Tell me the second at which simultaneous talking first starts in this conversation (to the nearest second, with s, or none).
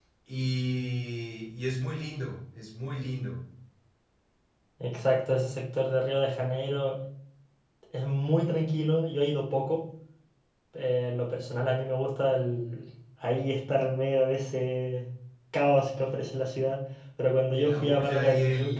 18 s